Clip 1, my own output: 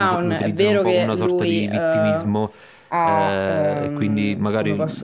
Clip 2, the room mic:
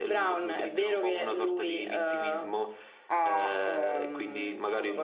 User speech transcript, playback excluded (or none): none